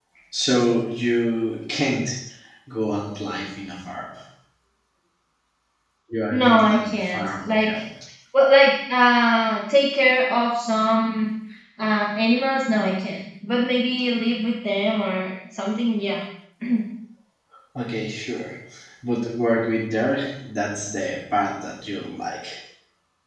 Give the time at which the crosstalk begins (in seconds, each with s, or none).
6.3 s